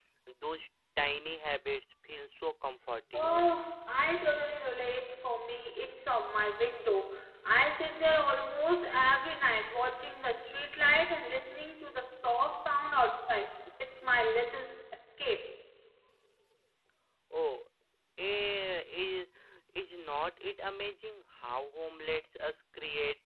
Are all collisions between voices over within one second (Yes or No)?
Yes